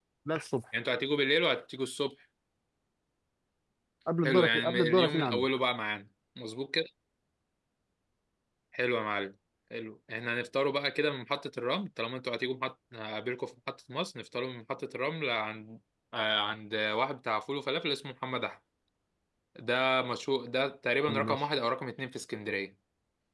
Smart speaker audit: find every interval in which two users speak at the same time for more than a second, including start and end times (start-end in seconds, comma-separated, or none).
4.2-5.5